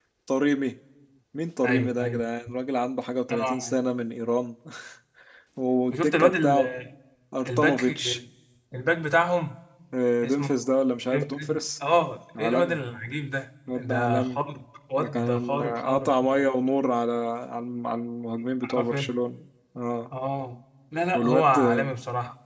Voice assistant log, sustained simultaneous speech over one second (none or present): present